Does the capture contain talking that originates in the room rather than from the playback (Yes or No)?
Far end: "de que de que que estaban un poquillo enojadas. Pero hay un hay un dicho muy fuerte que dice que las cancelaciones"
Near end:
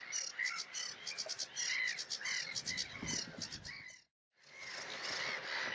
No